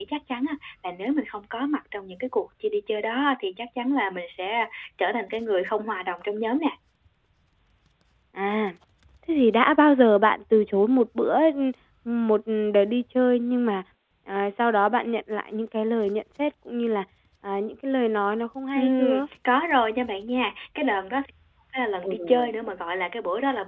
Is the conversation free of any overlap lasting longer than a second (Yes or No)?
Yes